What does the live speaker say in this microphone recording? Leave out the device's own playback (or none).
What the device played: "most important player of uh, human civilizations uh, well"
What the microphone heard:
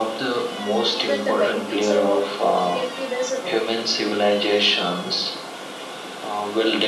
Even the benefits are not immediately visible.